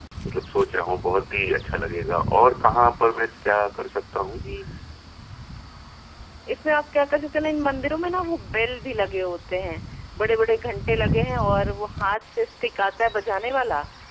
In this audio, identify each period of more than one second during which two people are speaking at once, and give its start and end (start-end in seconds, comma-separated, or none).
none